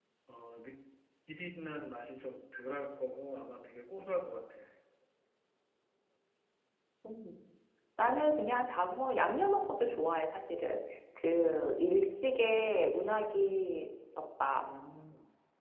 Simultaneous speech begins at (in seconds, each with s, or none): none